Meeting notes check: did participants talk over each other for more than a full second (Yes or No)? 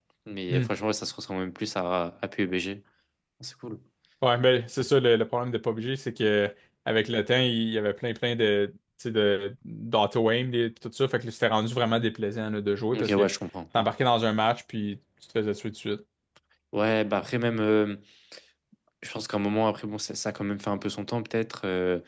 No